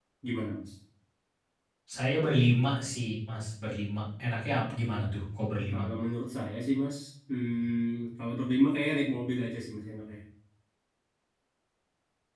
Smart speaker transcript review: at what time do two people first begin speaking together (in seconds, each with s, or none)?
none